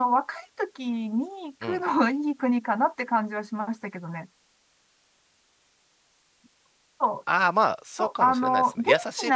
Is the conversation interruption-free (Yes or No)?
No